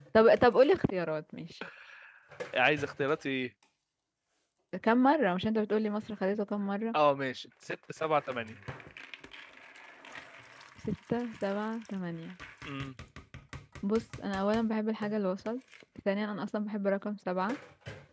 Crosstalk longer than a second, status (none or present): none